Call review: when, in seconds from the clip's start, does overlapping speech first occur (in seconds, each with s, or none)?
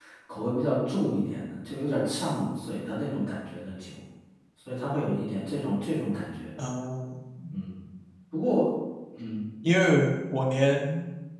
none